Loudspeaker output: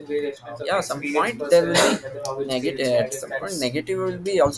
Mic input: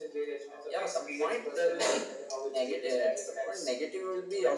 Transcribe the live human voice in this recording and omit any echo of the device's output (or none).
none